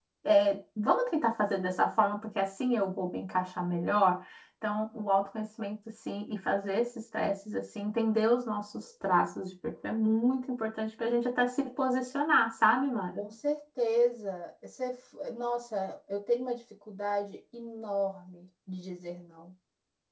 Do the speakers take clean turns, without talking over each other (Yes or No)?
Yes